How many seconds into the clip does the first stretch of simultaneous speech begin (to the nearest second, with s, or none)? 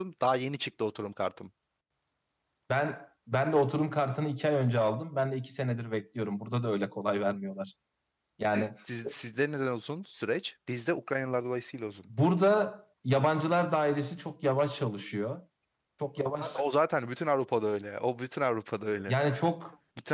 none